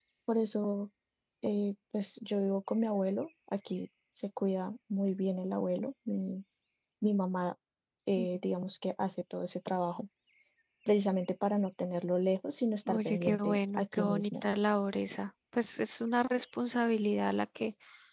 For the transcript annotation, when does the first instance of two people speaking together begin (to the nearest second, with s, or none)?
13 s